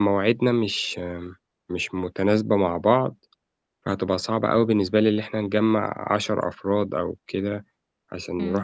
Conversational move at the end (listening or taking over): taking over